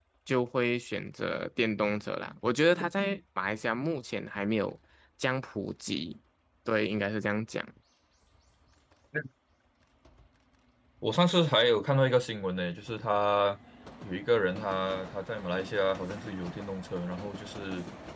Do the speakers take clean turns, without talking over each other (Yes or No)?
Yes